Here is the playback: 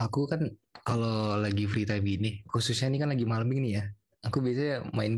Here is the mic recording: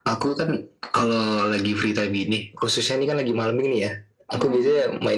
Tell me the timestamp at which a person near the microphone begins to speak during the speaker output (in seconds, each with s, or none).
4.3 s